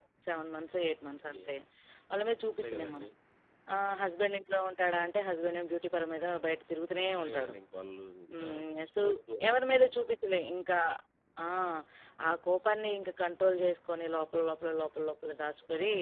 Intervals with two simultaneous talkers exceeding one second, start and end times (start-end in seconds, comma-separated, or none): none